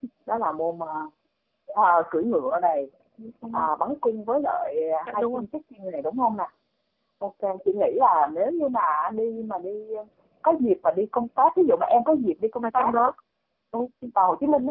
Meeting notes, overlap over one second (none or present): none